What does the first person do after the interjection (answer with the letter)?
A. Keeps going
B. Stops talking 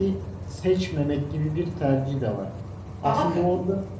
A